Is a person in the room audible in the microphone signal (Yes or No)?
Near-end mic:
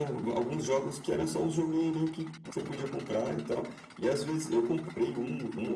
No